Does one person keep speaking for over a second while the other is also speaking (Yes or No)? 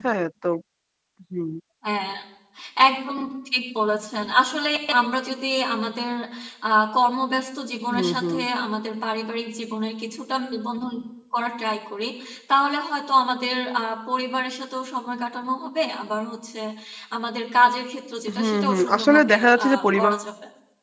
Yes